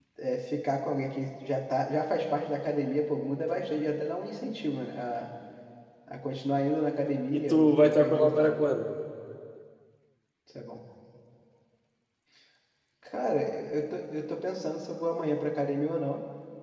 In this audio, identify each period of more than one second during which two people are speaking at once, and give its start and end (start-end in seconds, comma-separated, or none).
7.3-8.5